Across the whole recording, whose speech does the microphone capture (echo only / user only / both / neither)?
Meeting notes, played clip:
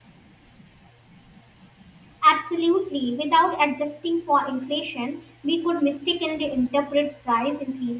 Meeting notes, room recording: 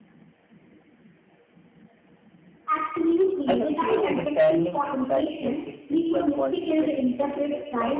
both